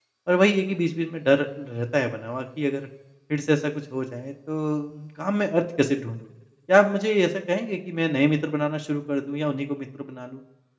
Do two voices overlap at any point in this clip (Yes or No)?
No